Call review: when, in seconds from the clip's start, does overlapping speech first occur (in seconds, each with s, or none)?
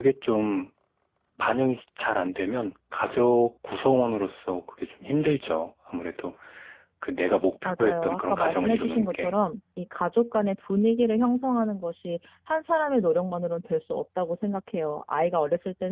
7.6 s